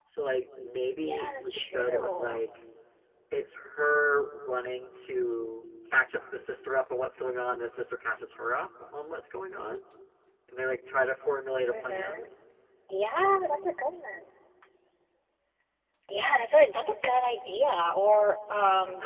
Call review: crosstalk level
present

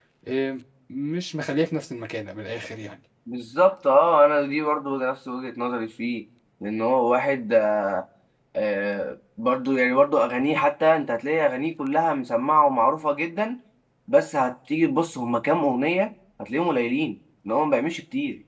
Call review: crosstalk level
none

